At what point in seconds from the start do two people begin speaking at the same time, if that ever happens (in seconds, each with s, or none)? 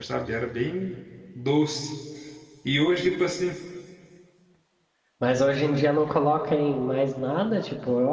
none